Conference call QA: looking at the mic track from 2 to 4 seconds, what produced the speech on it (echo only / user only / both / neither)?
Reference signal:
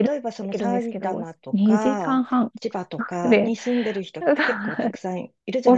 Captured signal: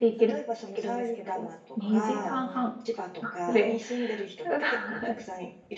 both